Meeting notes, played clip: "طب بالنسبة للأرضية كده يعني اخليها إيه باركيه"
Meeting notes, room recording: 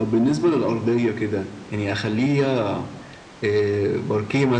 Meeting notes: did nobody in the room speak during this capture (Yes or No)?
Yes